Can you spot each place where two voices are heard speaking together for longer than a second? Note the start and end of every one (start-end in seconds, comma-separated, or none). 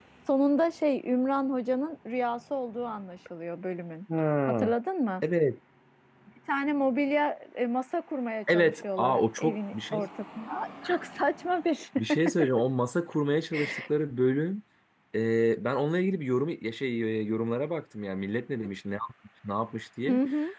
8.5-10.0